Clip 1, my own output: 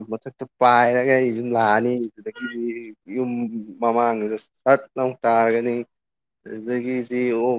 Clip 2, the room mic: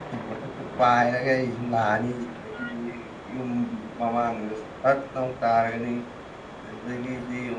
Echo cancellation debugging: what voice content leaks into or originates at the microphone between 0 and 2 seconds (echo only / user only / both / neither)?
echo only